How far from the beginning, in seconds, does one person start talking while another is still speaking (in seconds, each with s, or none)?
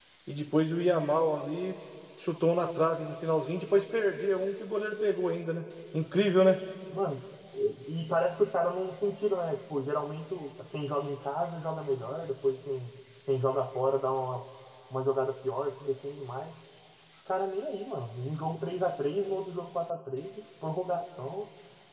none